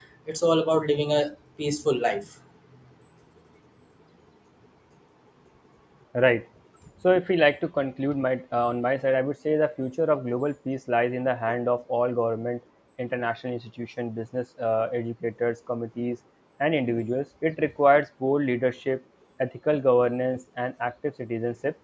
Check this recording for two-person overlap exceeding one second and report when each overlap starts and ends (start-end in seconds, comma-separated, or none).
none